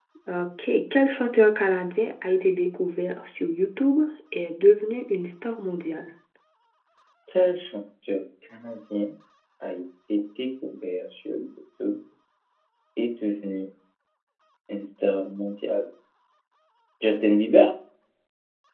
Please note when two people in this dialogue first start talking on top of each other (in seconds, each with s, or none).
none